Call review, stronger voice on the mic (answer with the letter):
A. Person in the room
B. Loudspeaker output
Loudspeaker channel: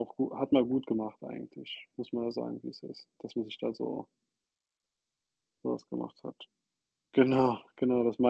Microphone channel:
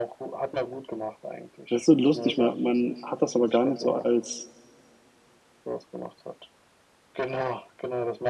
A